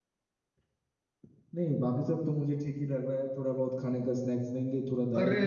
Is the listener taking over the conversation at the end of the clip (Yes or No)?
Yes